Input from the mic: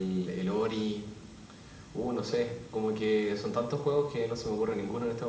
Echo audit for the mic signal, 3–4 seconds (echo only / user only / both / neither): echo only